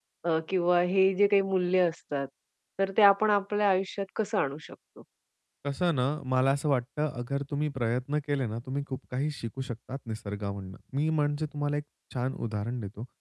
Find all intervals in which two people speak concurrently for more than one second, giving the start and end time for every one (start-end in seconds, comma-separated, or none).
none